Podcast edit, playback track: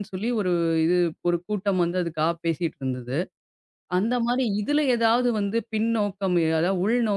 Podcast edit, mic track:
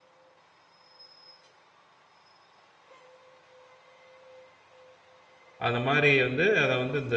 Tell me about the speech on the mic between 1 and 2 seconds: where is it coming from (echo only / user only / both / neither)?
neither